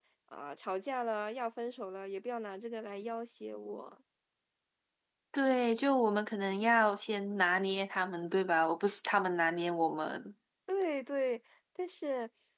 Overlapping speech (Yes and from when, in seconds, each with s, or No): No